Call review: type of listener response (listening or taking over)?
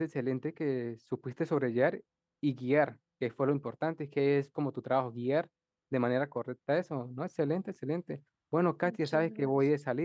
listening